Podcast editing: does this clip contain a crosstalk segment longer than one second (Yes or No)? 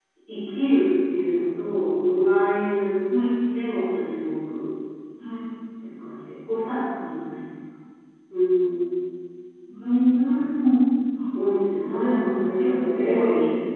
Yes